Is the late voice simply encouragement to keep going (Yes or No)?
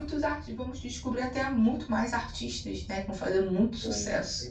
No